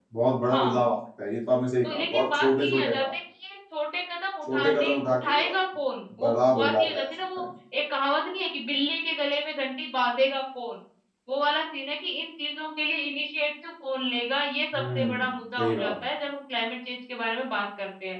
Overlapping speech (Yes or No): Yes